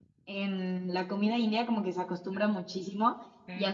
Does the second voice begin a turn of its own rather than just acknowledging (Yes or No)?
No